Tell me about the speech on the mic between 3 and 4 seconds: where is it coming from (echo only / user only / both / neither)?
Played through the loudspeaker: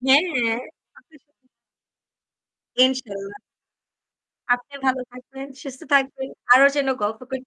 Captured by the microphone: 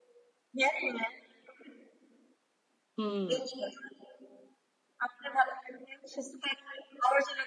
both